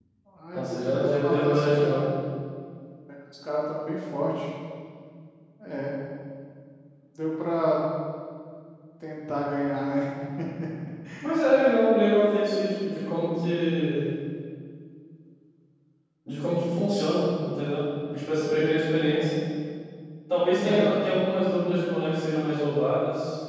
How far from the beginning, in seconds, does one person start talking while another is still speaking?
0.5 s

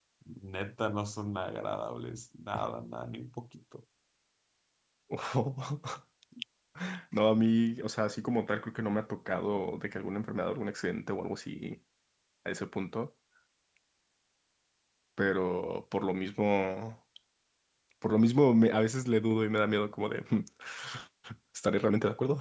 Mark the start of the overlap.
none

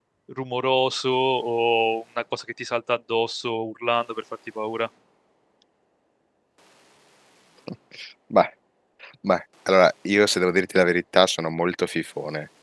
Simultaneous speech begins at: none

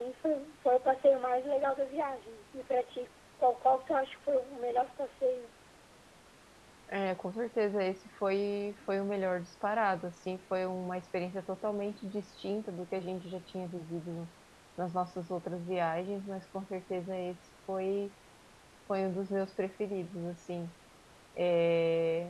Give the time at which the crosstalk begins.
none

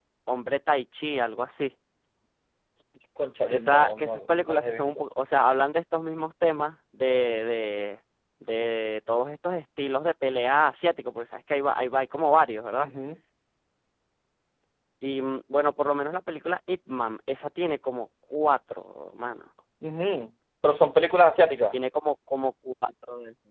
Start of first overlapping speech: 3.5 s

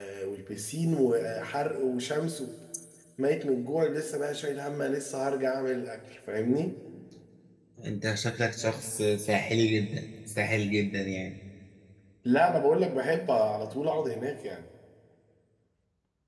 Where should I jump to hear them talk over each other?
none

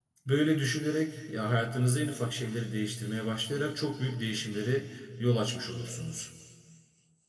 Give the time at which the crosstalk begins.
none

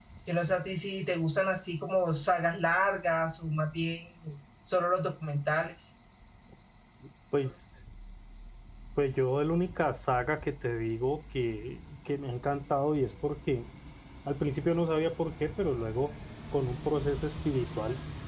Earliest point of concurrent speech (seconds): none

